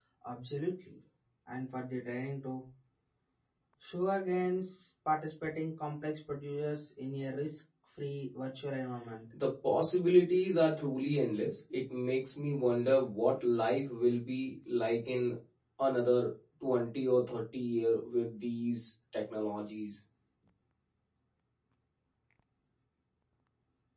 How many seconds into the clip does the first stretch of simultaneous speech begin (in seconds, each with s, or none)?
none